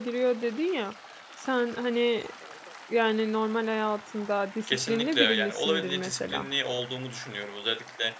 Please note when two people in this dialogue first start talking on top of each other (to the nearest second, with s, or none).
5 s